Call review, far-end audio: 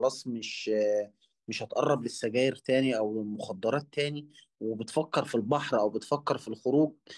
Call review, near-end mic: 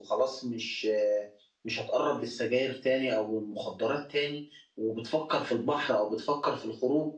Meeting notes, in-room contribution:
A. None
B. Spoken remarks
A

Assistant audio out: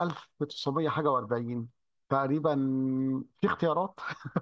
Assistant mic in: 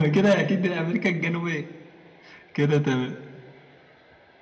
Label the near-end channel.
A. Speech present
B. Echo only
A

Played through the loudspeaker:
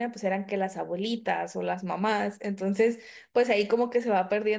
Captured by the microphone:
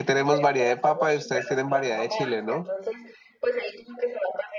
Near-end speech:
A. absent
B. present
B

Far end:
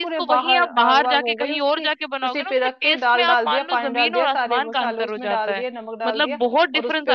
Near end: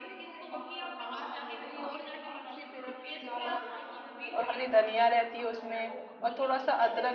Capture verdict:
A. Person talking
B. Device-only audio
A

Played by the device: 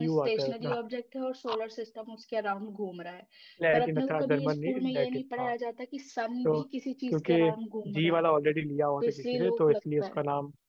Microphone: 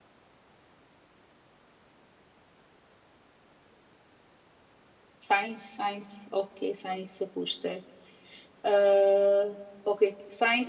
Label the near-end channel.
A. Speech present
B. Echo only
A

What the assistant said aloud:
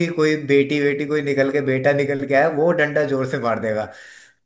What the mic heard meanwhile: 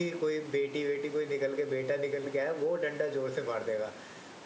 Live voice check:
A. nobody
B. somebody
A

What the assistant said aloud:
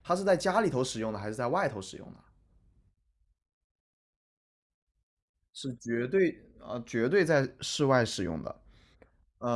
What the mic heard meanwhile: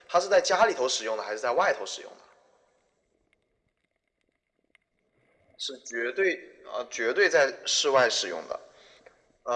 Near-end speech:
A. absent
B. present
A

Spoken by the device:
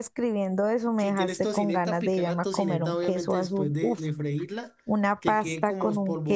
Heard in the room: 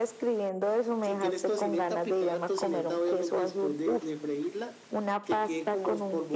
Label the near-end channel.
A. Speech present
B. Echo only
B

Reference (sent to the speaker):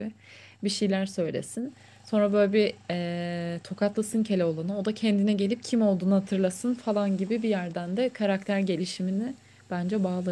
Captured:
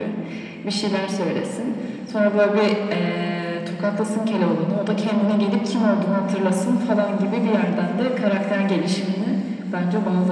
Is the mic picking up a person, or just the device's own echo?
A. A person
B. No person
B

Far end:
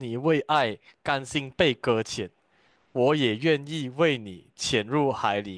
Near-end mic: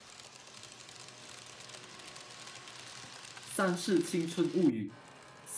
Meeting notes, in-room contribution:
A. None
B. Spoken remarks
B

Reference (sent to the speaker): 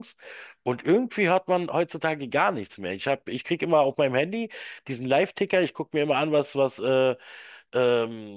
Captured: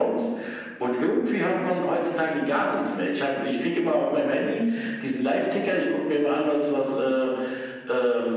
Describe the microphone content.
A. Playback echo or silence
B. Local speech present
A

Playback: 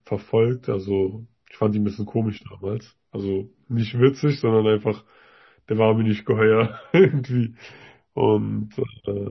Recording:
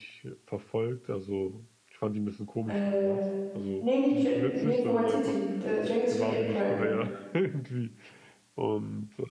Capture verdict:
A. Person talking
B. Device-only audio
A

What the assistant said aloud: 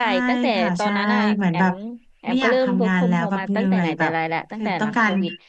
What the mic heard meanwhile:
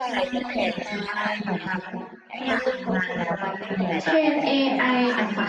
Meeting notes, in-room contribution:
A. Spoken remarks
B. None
A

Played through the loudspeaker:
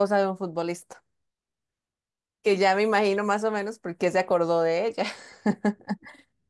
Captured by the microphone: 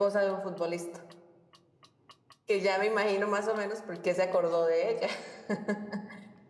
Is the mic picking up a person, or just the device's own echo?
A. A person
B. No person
B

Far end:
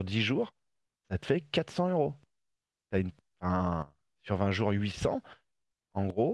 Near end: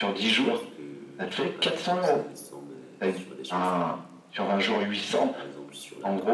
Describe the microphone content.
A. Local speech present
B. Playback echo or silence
A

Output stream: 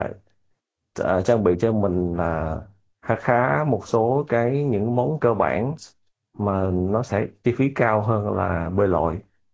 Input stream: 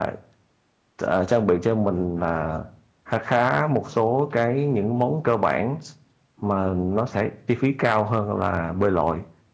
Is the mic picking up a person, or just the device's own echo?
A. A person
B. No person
B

